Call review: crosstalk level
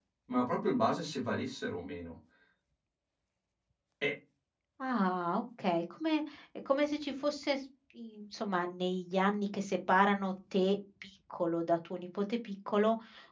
none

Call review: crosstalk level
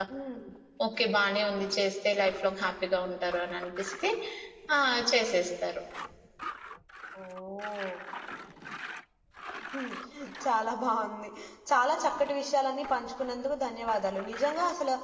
none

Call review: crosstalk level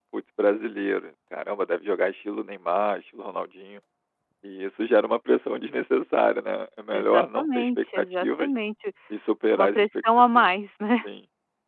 present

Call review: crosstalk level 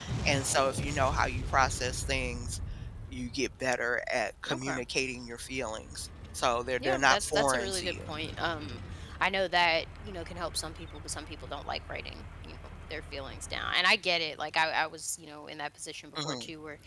present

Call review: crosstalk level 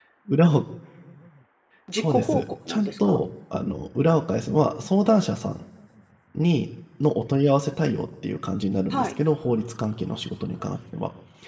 present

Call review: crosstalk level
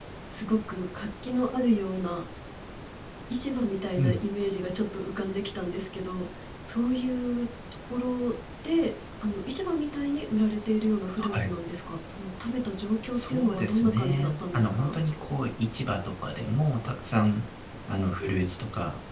present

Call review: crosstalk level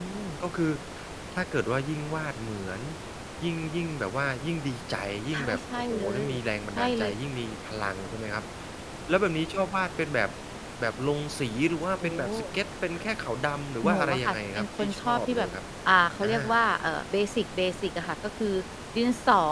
present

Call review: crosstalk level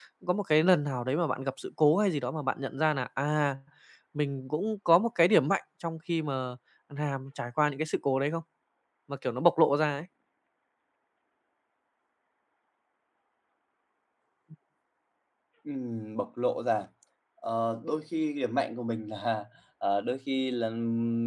none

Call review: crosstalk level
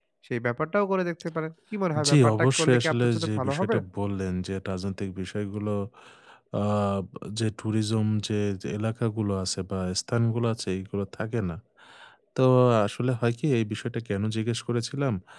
present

